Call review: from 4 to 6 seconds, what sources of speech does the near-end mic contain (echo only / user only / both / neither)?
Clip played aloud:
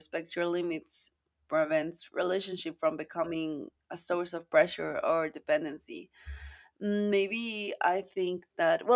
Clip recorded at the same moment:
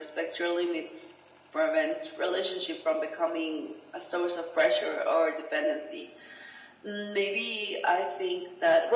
echo only